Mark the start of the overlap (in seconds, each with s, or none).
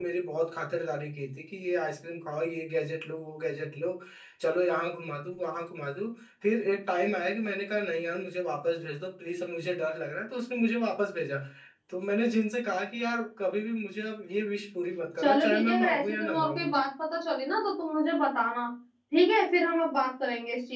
15.2 s